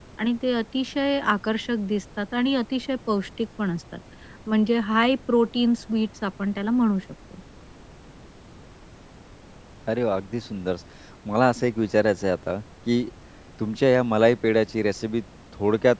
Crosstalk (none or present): none